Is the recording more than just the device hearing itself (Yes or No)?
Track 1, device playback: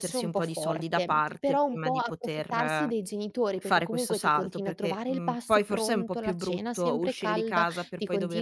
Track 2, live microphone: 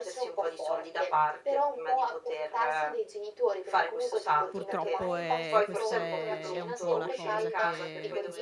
Yes